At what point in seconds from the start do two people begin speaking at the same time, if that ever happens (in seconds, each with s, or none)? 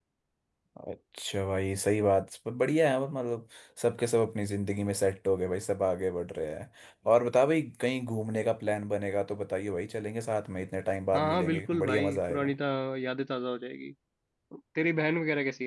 11.1 s